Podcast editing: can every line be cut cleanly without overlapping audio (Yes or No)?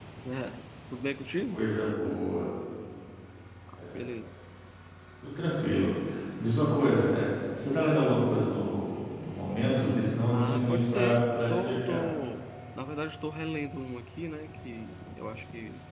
No